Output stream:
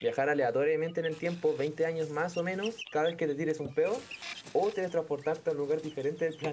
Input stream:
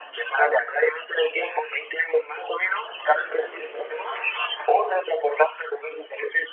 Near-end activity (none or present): none